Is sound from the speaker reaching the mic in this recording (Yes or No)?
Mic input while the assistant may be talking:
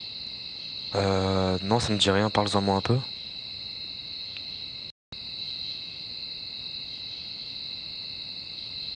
No